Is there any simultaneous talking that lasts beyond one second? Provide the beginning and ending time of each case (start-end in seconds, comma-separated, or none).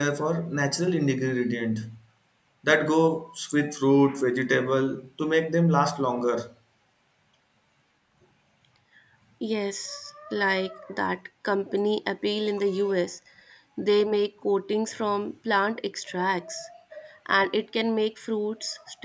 none